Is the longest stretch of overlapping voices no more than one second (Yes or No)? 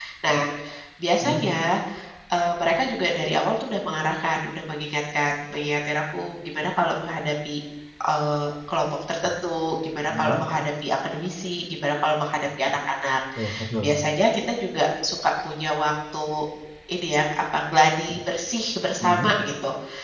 Yes